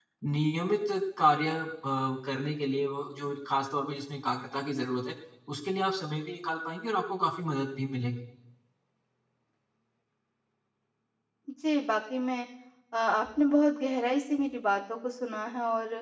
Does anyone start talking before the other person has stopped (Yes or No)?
No